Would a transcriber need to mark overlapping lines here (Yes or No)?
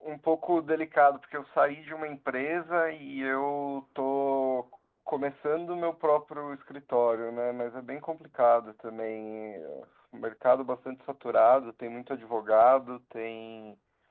No